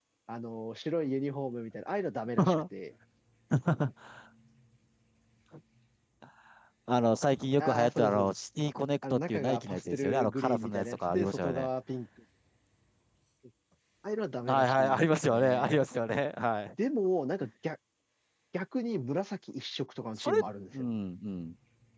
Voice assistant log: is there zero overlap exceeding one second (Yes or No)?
No